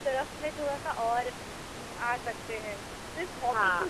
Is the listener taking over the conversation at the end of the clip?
No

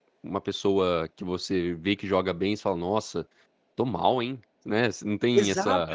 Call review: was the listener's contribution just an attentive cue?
No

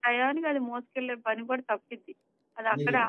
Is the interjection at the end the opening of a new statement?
No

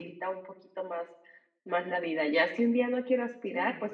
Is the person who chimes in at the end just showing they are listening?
Yes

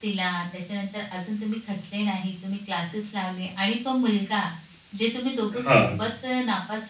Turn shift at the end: No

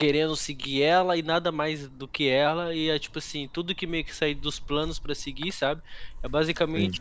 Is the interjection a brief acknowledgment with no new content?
Yes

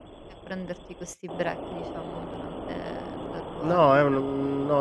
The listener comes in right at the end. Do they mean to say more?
Yes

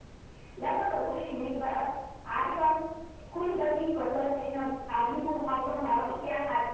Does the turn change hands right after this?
No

